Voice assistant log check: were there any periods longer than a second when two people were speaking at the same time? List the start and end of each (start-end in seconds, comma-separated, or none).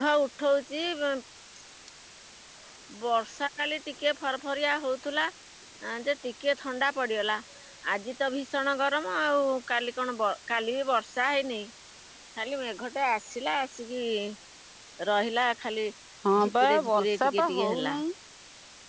16.4-18.0